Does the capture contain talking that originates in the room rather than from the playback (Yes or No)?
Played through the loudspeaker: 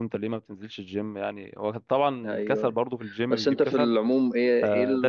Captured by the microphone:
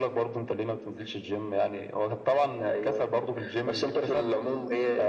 No